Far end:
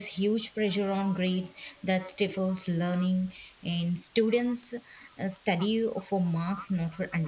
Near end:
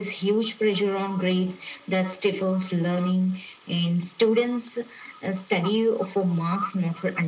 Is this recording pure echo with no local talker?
Yes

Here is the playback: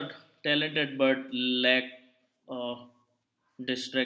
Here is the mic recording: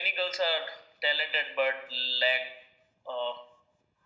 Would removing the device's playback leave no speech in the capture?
Yes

